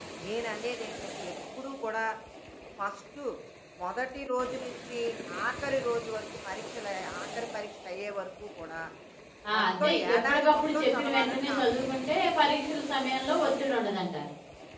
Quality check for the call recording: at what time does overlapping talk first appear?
10 s

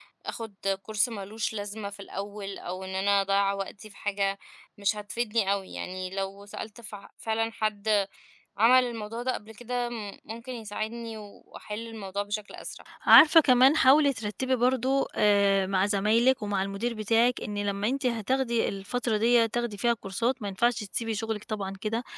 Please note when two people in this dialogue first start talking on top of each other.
none

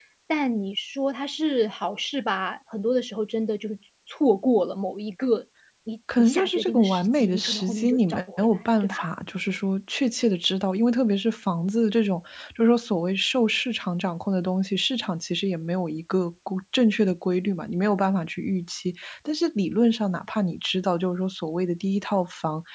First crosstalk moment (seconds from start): 6 s

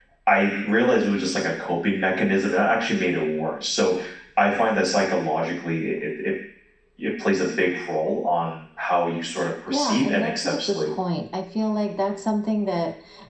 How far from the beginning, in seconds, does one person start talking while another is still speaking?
10 s

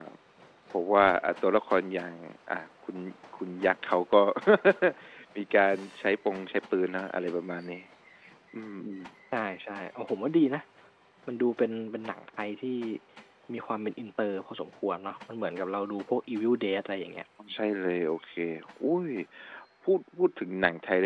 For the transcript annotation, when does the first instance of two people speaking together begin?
none

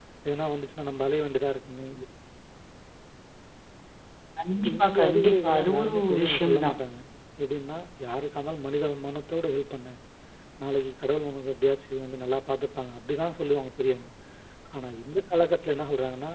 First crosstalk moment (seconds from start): 5 s

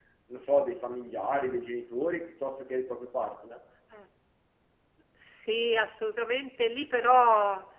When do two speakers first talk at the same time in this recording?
none

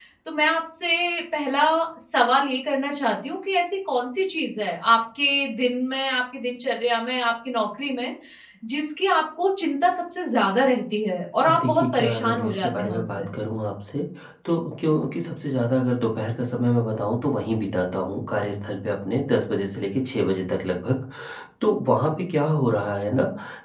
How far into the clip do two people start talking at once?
11 s

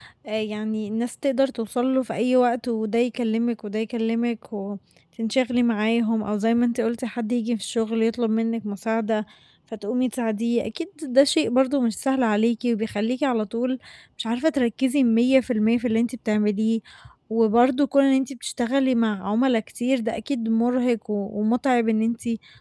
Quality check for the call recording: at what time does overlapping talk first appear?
none

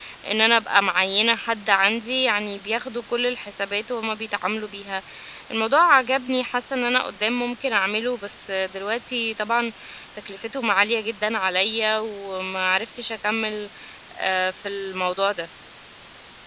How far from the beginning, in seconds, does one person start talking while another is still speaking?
none

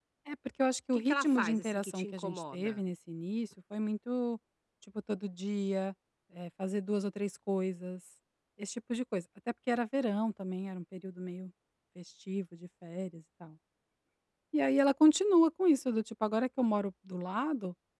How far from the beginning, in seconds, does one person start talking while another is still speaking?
1 s

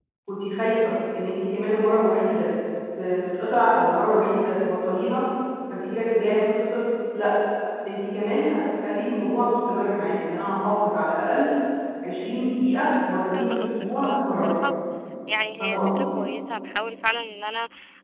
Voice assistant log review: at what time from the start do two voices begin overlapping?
13 s

